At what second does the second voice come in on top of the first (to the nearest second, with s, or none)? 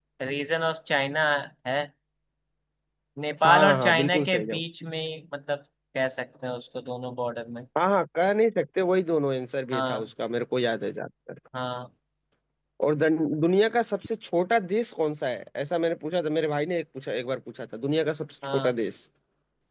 3 s